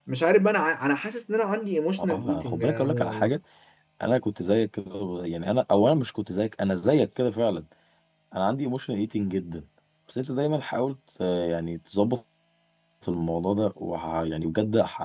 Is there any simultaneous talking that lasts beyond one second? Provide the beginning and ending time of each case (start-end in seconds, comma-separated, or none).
2.0-3.3